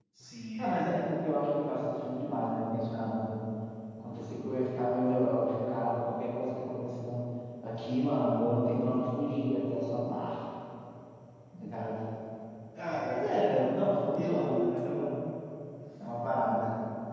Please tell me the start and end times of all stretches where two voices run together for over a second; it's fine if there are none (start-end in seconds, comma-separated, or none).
none